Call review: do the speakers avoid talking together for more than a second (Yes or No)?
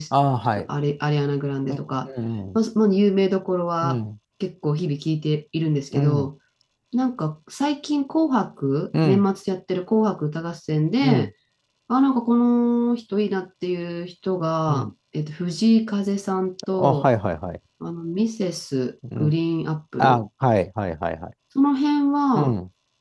Yes